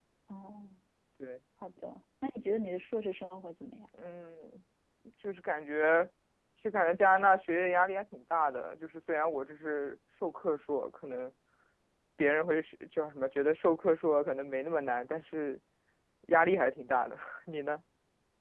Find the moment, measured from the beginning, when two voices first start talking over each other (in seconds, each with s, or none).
none